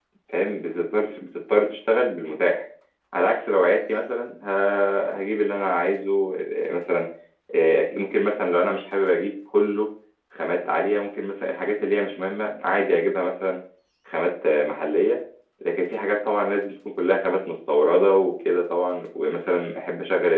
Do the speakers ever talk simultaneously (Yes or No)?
No